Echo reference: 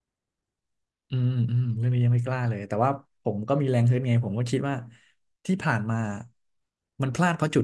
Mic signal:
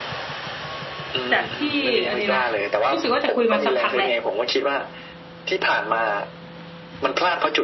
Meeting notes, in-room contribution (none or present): present